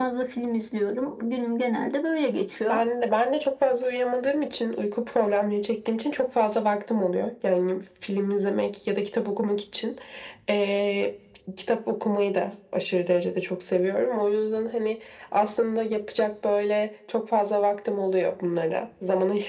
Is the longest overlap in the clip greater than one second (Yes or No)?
No